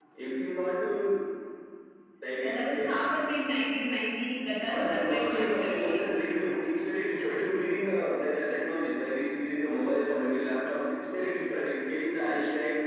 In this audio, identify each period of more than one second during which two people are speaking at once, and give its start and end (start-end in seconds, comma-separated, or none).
4.7-6.0